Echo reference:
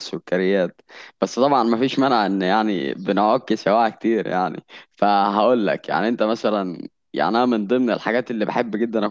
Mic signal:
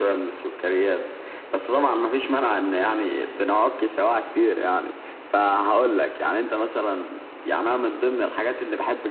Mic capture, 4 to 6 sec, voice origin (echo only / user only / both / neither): echo only